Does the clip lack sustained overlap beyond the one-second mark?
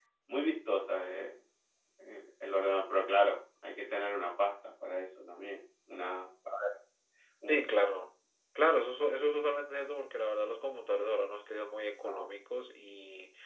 Yes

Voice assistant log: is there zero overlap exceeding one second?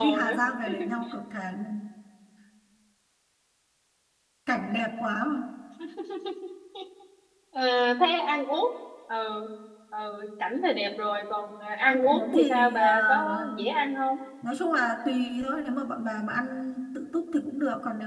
No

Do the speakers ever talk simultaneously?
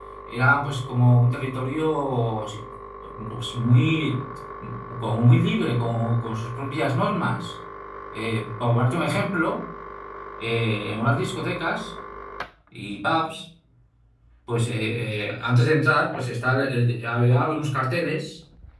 No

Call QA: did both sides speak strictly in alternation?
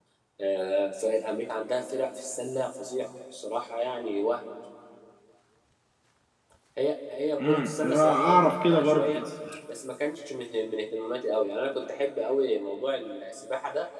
No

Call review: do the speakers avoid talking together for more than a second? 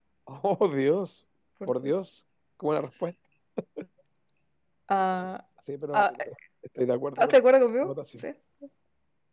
Yes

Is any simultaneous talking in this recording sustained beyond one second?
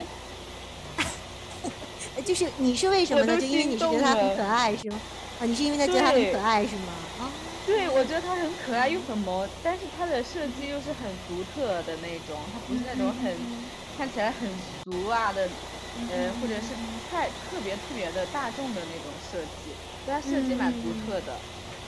Yes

